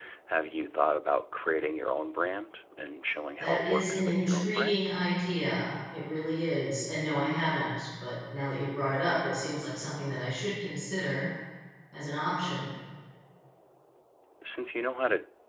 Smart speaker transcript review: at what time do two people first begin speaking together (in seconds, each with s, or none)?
3.4 s